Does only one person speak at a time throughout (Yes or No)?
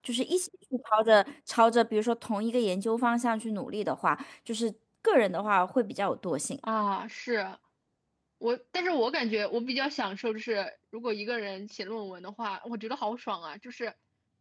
Yes